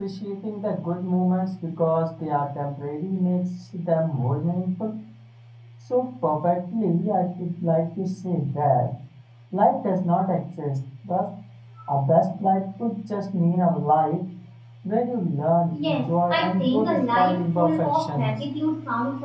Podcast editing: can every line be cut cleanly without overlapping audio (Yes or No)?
No